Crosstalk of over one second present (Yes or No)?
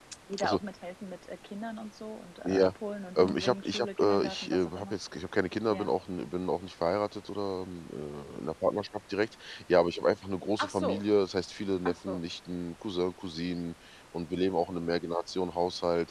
Yes